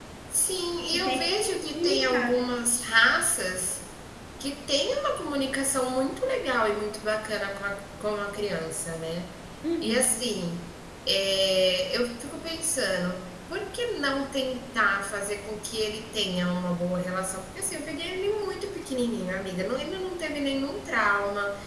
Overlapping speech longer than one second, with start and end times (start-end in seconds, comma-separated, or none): 0.9-2.5